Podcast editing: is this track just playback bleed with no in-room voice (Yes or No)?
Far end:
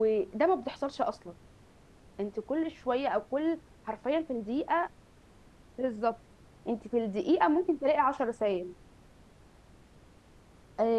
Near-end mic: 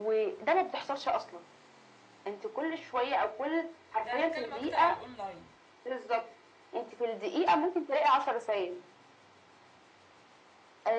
No